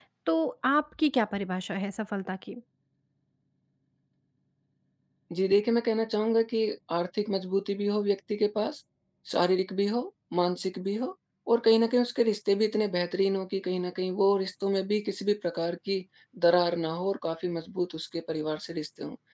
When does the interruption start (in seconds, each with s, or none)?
none